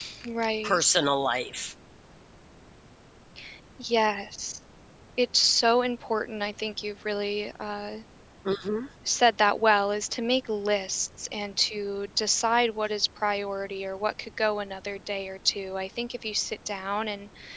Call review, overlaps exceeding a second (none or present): none